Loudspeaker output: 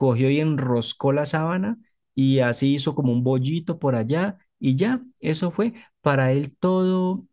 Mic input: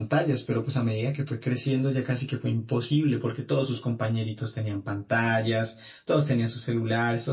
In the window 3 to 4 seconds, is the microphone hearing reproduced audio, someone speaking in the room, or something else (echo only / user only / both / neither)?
user only